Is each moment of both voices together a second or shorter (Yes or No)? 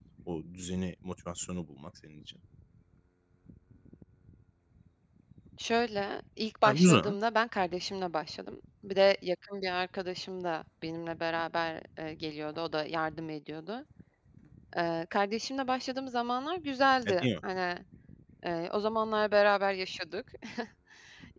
Yes